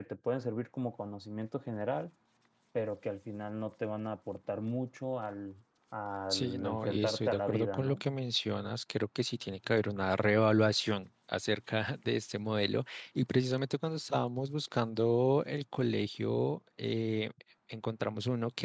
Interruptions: present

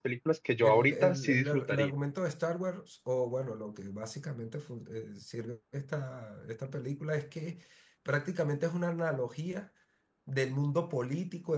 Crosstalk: present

